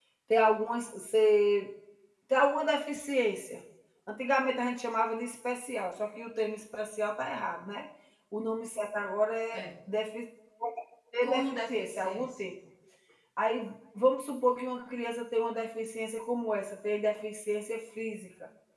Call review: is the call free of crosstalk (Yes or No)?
No